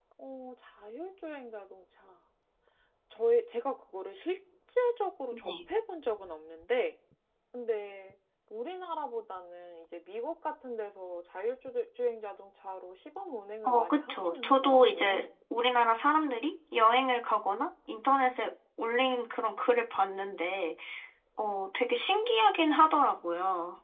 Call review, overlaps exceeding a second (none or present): present